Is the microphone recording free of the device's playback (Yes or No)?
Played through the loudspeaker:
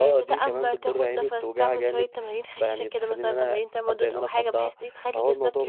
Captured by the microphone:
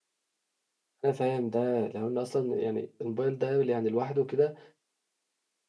Yes